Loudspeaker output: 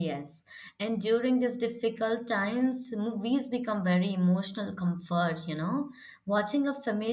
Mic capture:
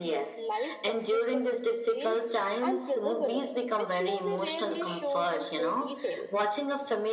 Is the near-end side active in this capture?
Yes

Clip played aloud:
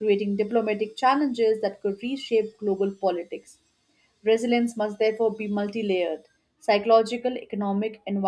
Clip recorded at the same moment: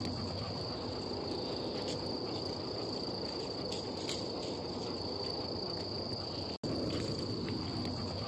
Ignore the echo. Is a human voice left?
No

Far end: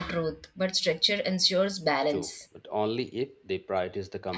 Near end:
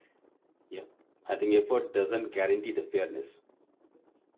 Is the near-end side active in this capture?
Yes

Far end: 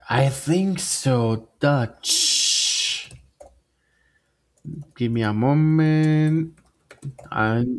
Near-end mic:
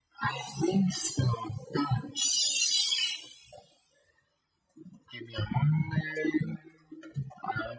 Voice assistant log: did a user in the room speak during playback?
No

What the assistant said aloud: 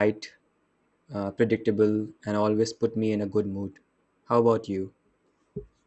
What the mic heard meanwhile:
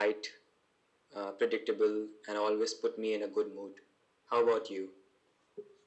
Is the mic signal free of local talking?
Yes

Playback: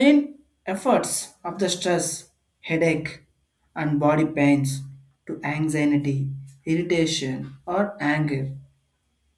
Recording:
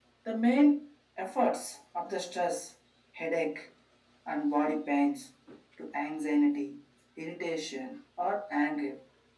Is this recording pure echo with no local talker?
Yes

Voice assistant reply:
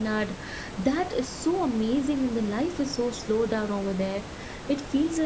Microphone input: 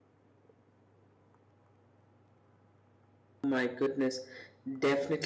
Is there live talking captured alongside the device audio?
Yes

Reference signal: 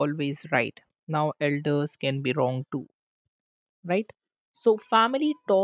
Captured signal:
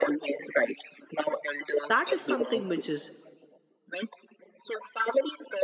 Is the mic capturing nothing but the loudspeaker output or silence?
No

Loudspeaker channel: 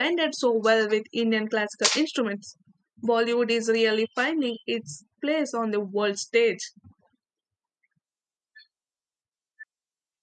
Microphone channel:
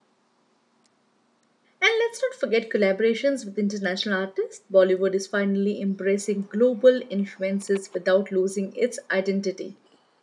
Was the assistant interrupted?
Yes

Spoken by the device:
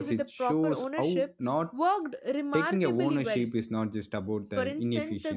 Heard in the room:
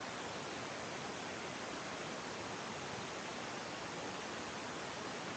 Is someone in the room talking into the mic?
No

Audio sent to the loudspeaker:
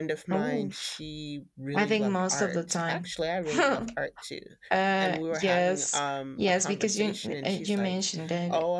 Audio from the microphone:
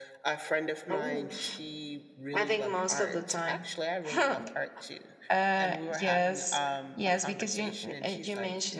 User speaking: No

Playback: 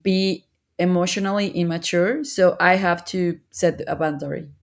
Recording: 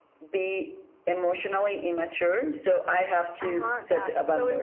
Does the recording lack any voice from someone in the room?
No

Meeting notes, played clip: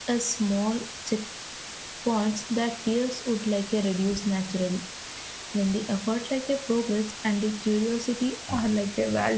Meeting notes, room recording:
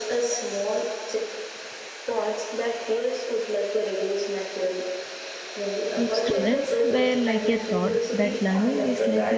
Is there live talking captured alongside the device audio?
Yes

